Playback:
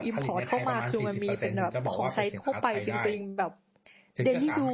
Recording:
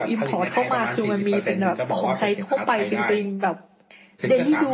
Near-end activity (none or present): none